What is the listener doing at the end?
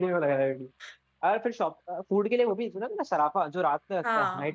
taking over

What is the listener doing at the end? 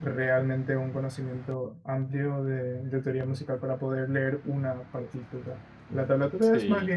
listening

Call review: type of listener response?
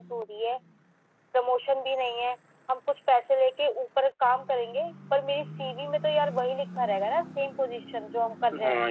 taking over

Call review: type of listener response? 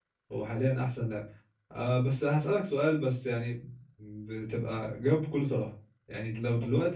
listening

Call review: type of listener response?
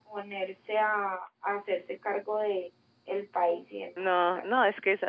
taking over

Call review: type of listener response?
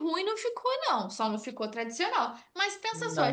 listening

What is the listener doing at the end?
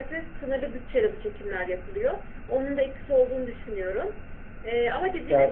listening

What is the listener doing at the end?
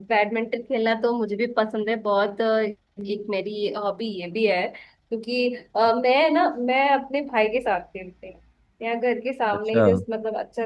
listening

